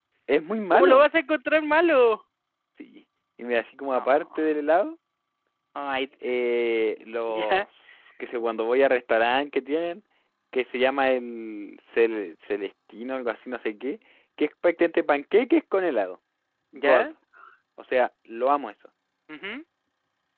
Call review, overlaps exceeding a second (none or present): none